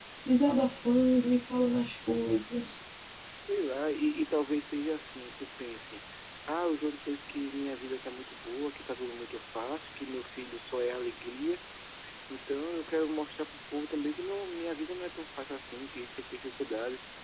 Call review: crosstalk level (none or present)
none